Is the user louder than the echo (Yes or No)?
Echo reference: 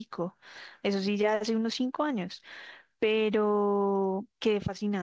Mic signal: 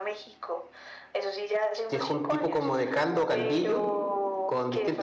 Yes